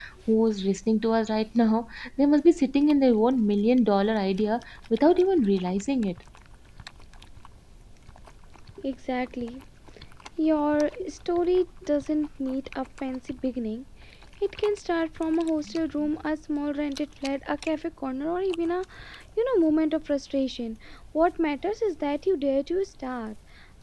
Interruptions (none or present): none